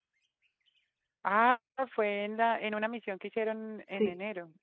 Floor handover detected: Yes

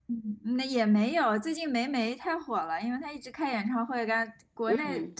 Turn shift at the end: No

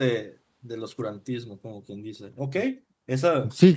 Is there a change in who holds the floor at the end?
Yes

